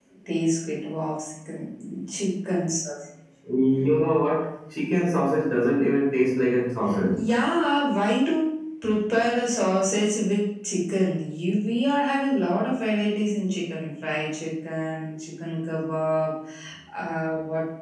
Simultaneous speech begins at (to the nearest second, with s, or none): none